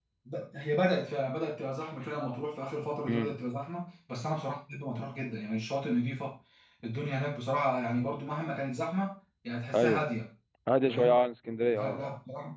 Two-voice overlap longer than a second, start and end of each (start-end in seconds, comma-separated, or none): none